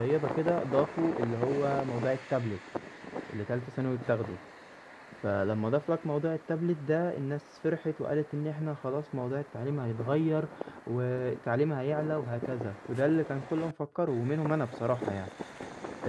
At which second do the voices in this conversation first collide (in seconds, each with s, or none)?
none